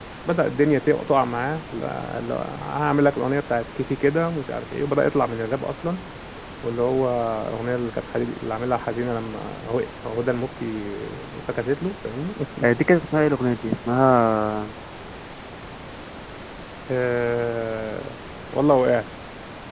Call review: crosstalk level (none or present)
none